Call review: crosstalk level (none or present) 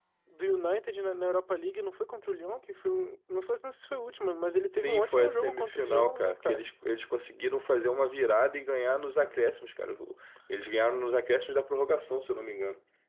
present